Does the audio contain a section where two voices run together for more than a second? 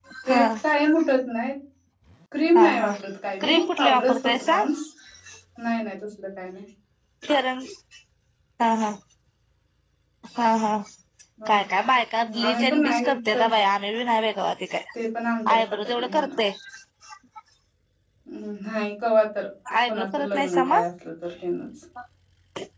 Yes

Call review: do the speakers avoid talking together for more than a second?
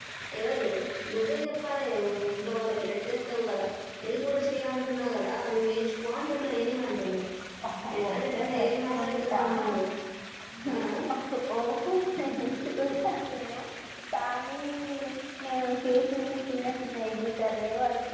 No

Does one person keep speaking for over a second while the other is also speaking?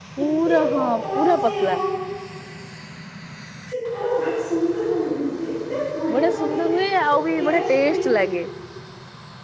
Yes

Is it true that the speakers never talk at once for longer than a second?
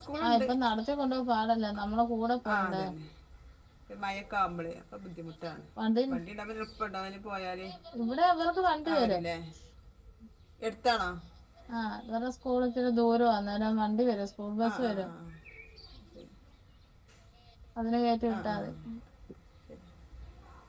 Yes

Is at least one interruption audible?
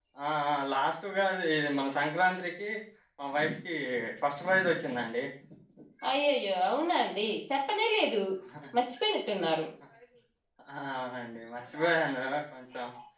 No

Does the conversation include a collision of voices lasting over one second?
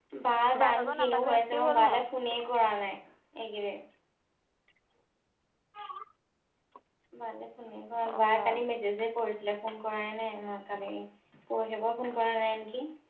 Yes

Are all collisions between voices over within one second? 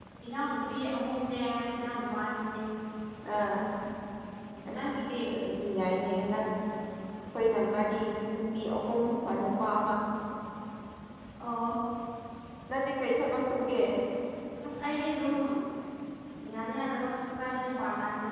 Yes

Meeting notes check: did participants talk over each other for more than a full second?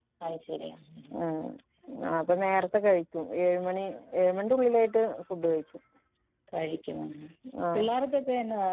No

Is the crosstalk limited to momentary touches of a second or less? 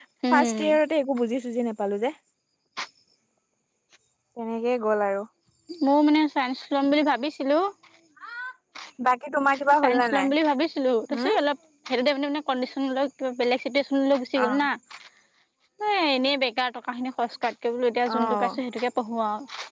Yes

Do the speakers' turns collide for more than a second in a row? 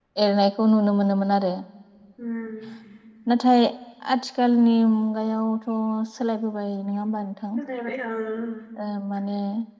No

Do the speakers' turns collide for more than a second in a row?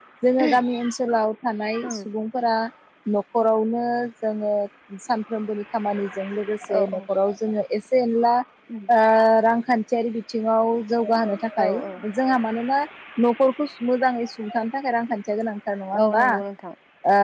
No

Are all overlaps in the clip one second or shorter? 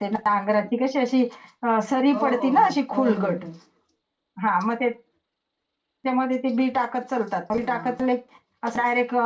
No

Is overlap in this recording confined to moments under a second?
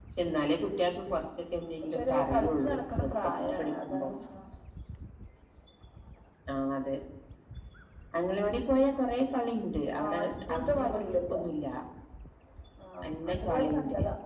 No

